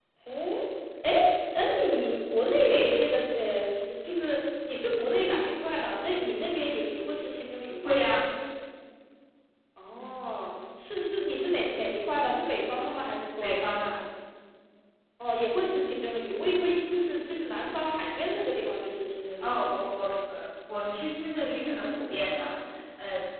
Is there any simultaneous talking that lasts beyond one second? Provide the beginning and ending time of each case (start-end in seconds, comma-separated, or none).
none